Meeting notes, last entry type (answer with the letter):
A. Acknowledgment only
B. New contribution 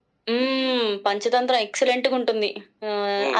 B